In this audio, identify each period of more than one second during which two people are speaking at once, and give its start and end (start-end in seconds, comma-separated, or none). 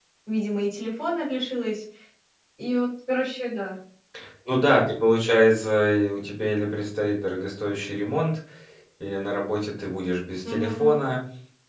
none